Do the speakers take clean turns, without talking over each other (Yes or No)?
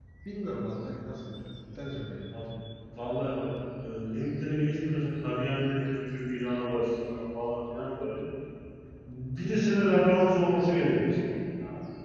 Yes